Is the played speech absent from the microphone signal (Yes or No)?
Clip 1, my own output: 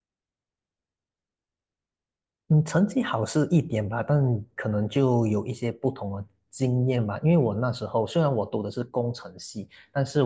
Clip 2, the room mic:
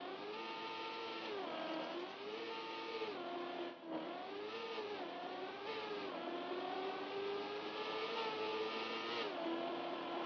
Yes